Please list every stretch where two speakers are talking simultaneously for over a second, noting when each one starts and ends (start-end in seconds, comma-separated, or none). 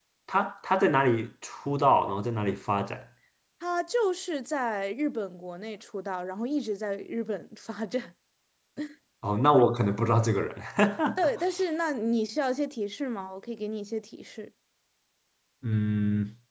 none